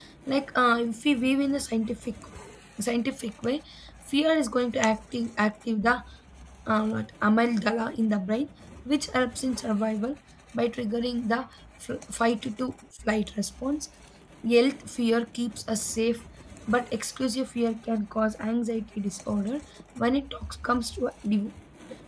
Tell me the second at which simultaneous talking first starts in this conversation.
none

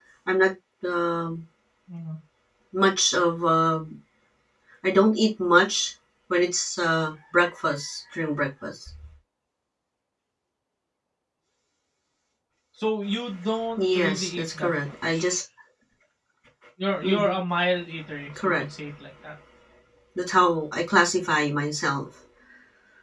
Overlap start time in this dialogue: 14 s

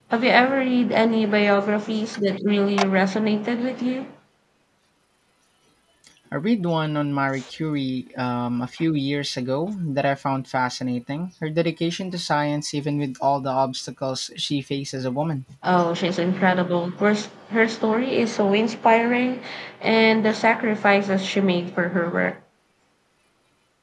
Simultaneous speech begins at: none

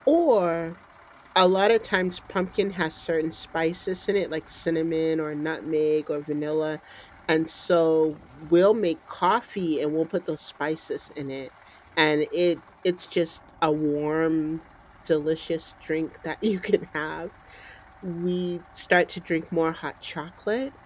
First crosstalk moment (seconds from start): none

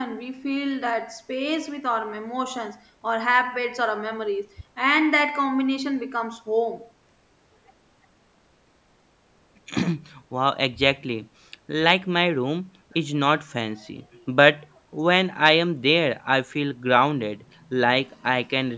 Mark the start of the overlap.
none

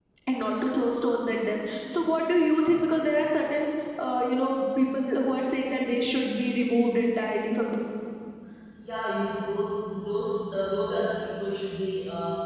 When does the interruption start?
none

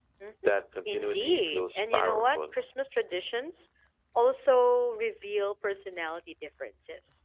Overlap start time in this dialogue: 1 s

